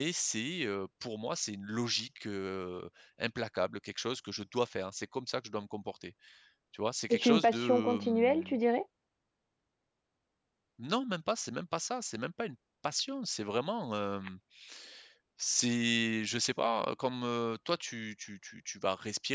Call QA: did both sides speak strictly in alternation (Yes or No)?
No